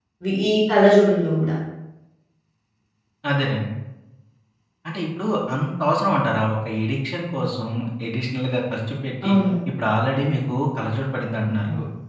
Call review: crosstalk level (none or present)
none